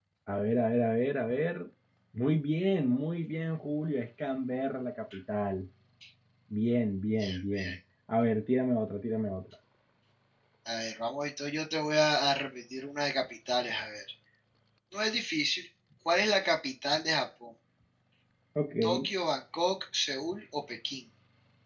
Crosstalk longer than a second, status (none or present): none